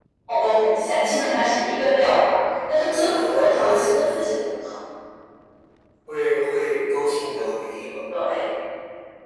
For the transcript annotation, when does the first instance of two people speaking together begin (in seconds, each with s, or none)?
2.8 s